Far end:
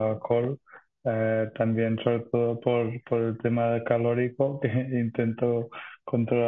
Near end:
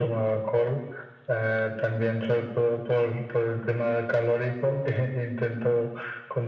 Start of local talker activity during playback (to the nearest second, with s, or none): none